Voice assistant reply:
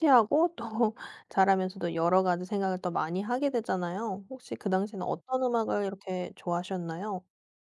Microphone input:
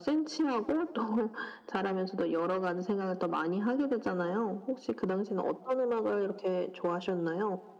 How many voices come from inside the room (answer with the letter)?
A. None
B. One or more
A